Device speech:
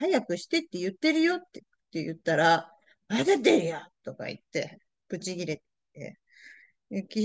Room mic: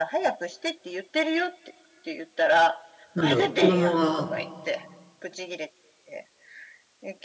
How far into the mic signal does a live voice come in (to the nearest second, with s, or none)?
3 s